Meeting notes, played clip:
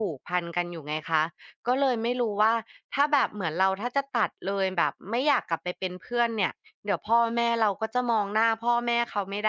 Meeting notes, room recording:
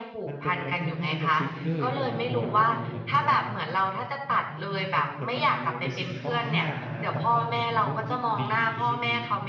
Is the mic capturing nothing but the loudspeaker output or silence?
No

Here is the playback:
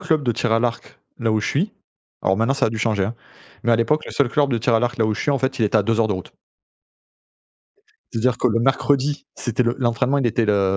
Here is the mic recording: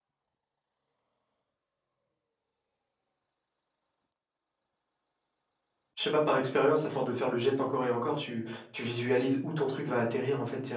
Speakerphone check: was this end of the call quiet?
No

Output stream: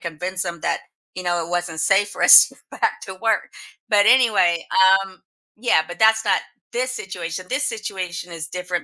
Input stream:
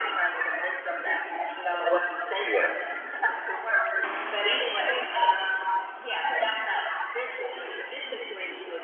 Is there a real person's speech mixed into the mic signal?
Yes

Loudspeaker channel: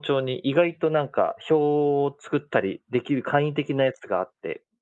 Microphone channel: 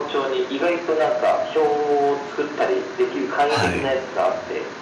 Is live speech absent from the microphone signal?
No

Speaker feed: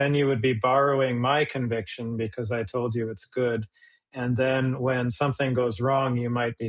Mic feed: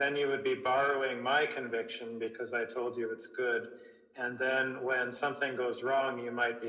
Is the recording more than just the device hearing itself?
No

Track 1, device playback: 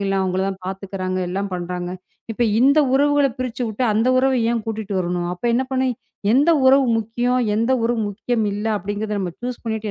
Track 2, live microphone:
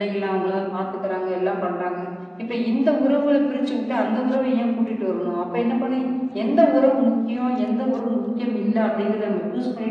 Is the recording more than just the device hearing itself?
No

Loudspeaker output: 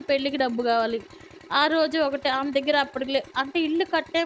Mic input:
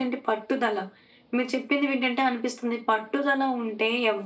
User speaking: Yes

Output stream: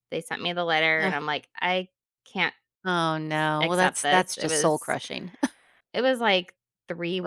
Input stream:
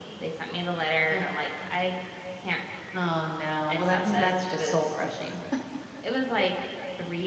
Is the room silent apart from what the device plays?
No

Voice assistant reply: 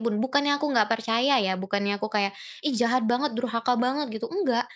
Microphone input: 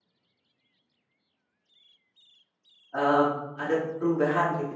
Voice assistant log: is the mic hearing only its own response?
No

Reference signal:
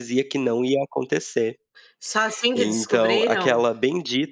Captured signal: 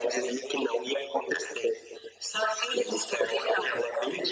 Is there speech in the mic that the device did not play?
No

